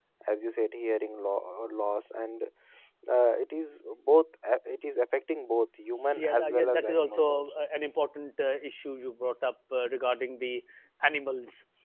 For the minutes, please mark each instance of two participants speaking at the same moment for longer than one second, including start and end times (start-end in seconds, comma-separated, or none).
6.2-7.5